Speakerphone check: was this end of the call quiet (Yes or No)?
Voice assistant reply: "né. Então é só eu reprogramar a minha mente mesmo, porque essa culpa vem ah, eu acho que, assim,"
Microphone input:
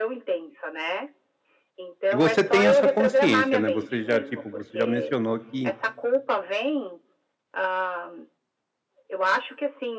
No